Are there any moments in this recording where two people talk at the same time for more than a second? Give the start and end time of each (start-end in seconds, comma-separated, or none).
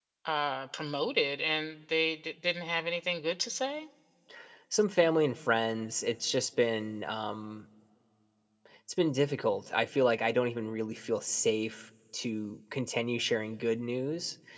none